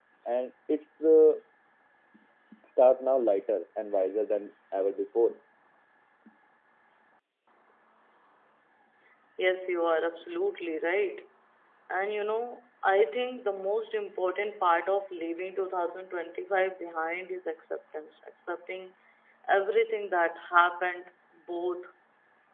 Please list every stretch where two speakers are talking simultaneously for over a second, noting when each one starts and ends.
none

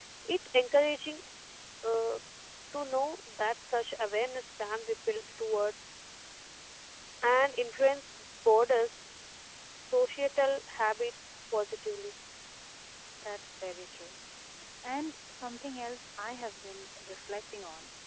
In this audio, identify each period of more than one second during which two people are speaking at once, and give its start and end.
none

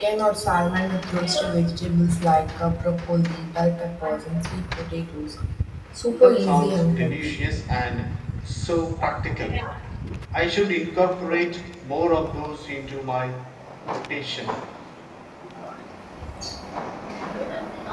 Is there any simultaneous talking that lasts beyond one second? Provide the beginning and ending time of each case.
6.1-7.4

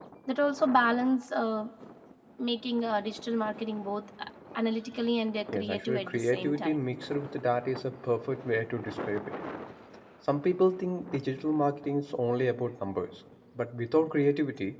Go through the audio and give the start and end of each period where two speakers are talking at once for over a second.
5.5-6.8

